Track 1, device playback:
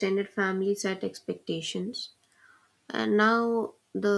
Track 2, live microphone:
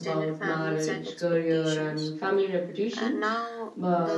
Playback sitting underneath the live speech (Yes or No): Yes